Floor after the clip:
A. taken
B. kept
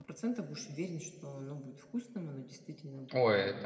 A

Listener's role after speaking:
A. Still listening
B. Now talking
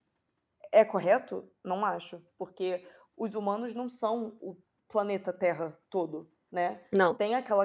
A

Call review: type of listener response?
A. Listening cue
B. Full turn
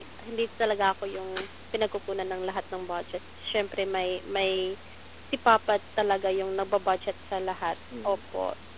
B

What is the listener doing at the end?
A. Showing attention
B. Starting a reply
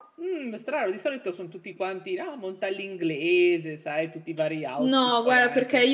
B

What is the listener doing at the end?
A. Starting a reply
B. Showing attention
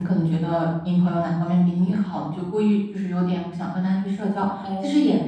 B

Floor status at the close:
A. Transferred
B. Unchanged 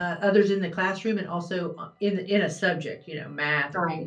A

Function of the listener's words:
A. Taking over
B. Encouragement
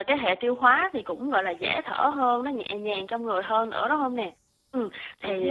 B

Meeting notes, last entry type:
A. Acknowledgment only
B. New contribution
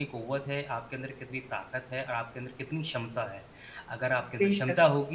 A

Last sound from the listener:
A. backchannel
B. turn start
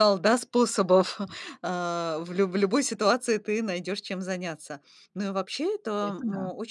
A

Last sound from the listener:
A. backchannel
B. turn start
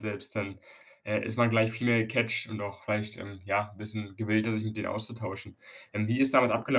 A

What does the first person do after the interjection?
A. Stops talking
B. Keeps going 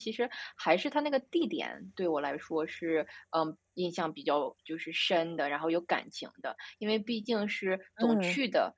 B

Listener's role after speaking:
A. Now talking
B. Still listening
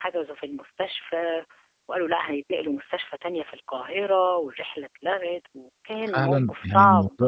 A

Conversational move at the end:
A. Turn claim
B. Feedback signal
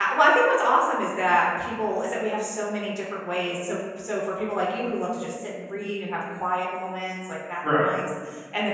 B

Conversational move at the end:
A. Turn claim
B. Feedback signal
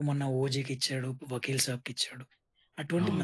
B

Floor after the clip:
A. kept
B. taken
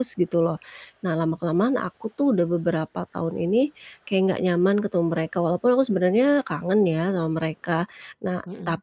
A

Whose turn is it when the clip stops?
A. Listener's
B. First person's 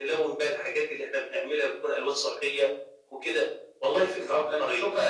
A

